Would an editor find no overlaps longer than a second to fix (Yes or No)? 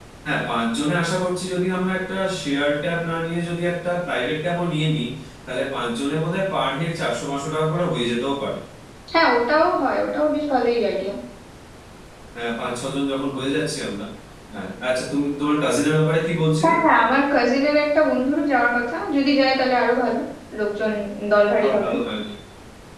Yes